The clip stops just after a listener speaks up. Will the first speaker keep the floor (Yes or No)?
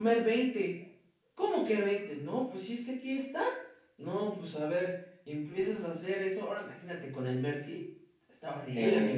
No